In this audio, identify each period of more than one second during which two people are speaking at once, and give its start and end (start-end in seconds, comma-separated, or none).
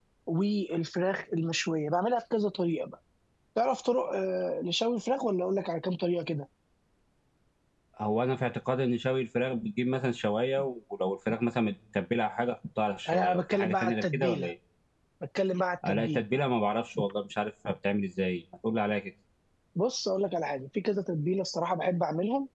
13.1-14.5